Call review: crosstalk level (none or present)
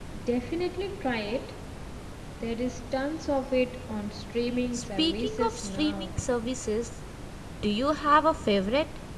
present